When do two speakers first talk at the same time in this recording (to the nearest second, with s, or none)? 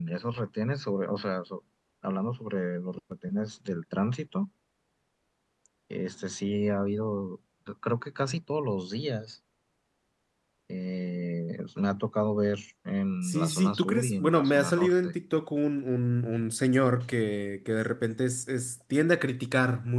13 s